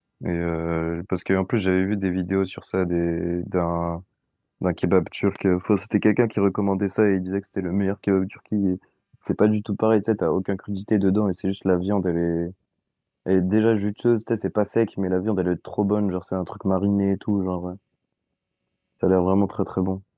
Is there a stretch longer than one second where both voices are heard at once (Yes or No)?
No